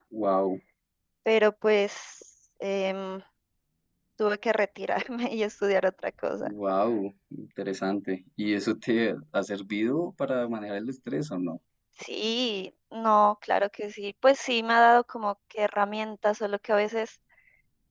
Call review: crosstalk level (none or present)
none